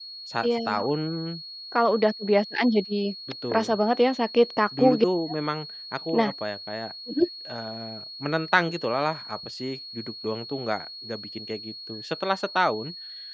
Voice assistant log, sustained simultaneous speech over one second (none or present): none